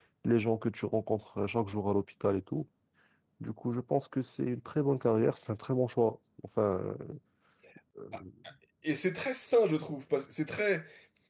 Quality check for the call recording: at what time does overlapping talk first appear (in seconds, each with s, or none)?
none